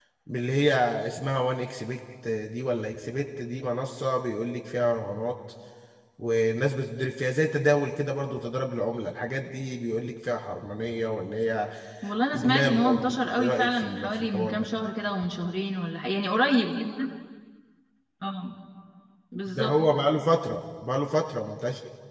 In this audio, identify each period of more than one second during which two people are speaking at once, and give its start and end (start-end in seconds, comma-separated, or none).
12.3-14.7